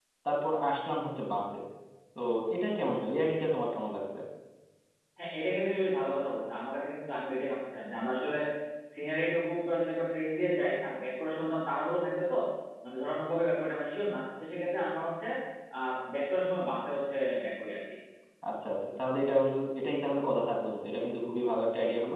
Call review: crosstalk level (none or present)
none